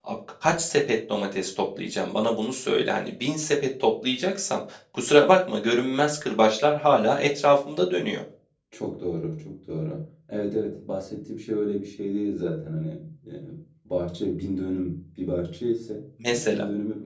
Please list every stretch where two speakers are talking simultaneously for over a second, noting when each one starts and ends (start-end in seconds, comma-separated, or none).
none